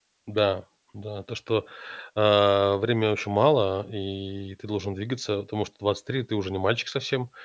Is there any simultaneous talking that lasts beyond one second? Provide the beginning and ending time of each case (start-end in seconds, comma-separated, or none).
none